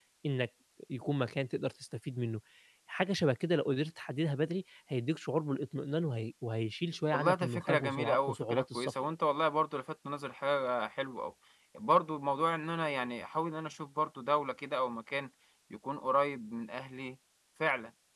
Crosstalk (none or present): present